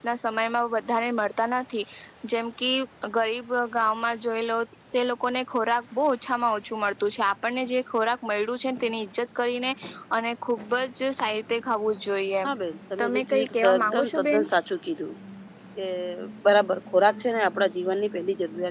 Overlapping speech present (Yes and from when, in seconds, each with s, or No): Yes, from 13.0 s